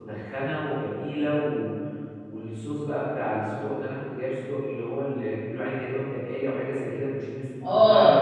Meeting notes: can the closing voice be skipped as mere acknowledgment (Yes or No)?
No